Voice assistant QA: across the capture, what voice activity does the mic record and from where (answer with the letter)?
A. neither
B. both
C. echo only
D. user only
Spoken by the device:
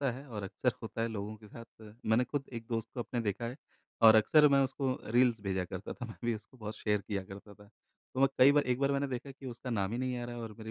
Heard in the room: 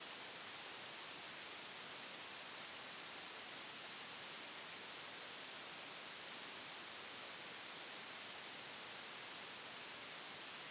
A